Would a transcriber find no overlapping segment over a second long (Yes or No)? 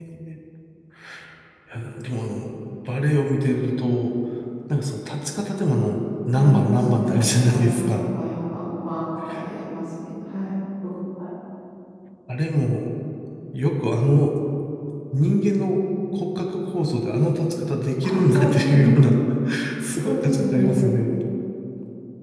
No